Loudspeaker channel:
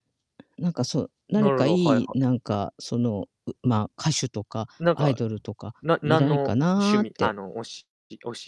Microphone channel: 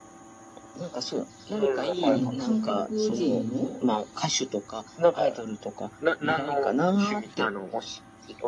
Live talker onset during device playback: 2.0 s

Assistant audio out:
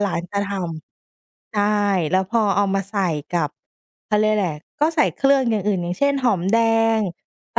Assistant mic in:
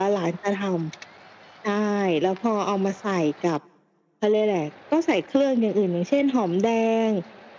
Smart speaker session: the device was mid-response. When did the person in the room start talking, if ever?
none

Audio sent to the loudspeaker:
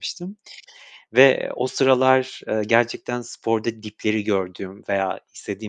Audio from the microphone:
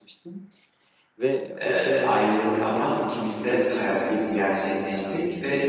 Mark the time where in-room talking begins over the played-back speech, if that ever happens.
1.6 s

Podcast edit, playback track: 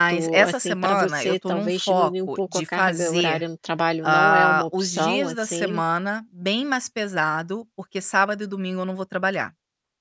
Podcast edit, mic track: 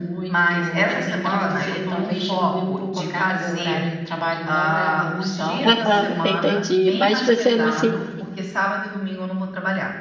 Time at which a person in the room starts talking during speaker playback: 5.7 s

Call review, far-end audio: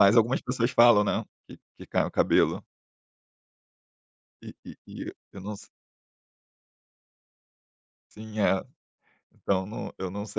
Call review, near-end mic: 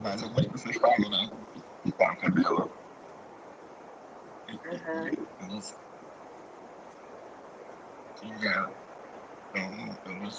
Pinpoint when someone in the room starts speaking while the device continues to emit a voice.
4.6 s

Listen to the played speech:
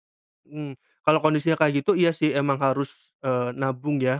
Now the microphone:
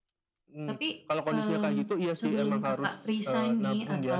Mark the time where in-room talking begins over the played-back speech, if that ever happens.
0.7 s

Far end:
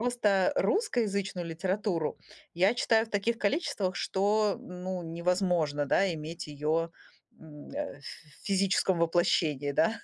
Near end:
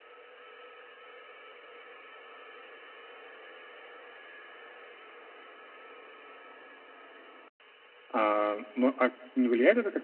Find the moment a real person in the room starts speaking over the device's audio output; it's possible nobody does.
8.1 s

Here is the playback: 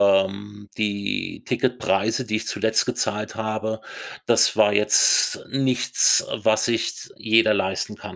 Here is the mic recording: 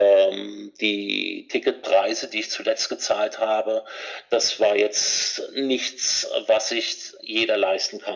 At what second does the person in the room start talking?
none

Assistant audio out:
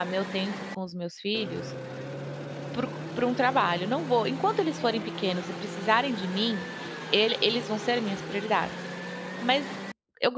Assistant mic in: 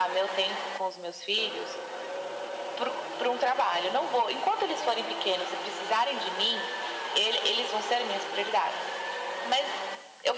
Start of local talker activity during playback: none

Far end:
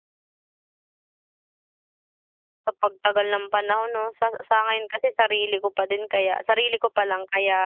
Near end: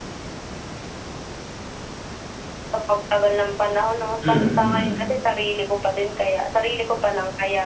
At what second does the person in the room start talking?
4.2 s

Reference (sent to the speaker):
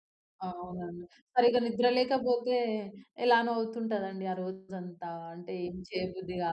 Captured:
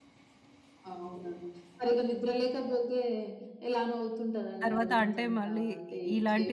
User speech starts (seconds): 4.6 s

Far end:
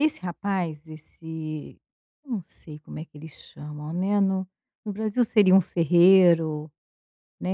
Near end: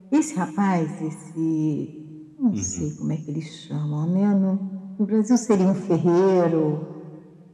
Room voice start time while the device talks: 2.5 s

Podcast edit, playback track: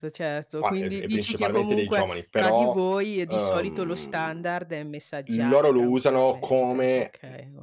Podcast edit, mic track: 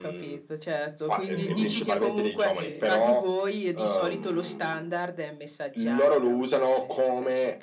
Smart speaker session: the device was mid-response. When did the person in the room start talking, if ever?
1.3 s

